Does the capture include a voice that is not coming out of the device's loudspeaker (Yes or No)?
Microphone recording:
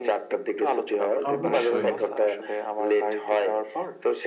Yes